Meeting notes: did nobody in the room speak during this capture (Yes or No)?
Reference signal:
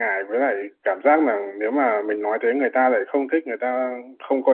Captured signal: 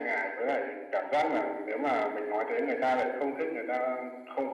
Yes